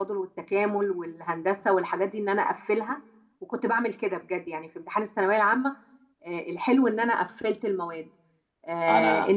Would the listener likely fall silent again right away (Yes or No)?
Yes